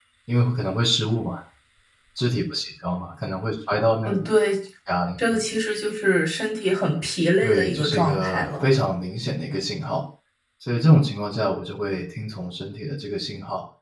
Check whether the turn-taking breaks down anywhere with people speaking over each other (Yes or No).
Yes